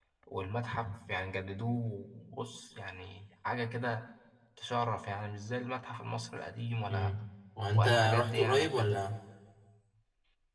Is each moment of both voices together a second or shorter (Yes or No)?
No